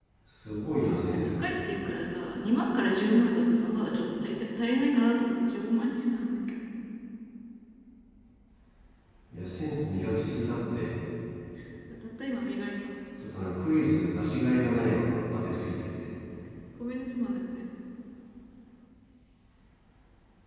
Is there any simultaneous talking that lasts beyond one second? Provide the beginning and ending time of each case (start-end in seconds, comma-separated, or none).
none